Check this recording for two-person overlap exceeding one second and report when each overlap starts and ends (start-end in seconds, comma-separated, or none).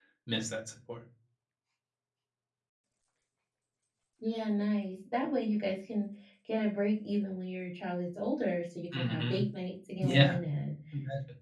none